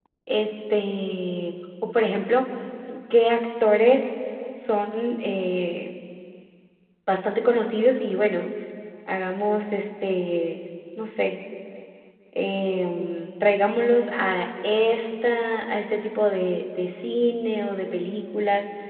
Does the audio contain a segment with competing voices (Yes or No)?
No